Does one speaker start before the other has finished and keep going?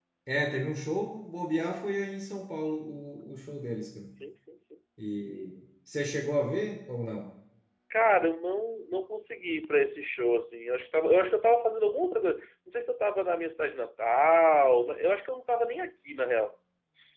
No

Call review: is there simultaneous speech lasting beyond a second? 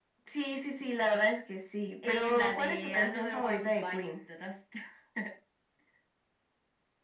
Yes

